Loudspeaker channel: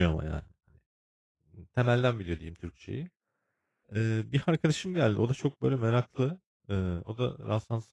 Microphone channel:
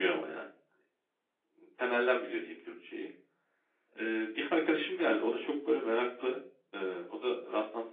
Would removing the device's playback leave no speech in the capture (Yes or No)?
Yes